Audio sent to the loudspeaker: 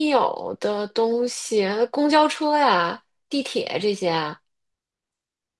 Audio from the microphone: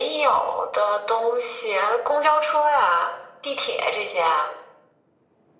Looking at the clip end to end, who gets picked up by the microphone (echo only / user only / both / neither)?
echo only